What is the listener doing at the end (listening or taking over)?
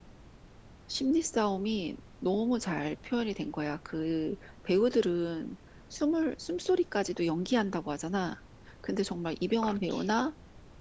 listening